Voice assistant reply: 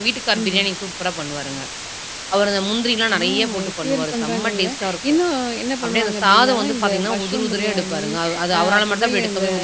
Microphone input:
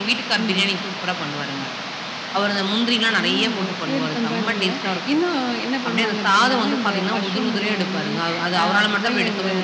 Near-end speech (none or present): none